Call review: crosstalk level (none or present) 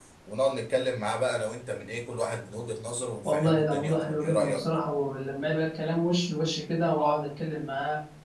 present